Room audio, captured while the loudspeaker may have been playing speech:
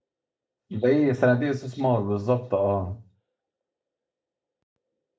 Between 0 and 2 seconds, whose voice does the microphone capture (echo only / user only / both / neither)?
user only